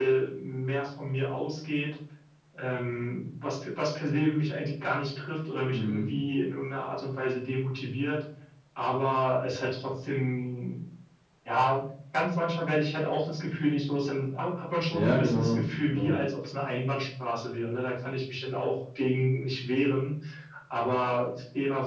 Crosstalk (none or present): present